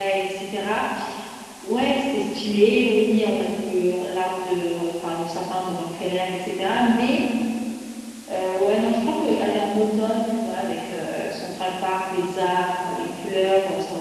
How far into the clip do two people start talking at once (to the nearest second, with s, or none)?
none